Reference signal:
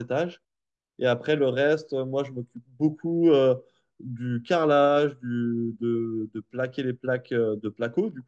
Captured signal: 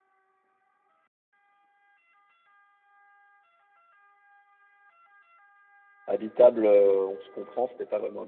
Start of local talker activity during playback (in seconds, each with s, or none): 6.0 s